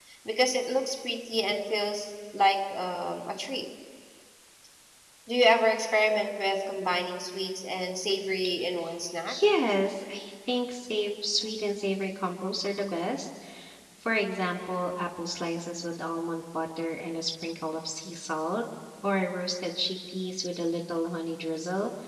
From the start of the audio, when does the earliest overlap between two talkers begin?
none

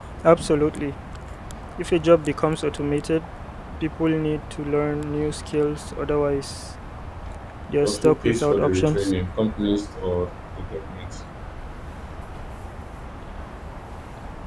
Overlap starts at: 7.8 s

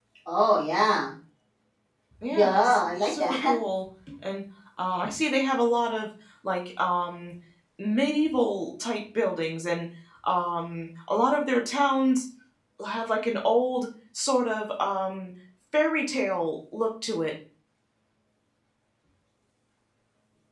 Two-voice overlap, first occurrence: 2.3 s

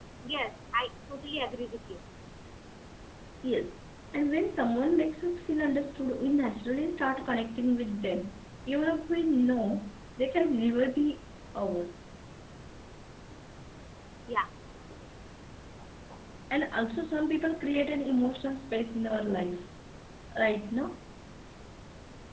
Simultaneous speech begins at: none

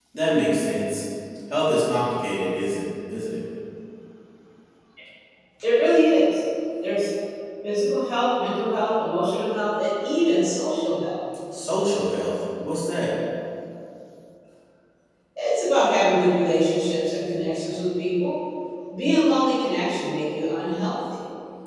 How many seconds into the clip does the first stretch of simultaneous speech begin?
none

